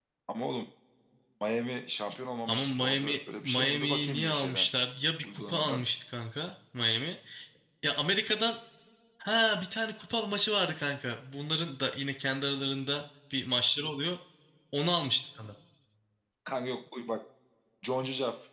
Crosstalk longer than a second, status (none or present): present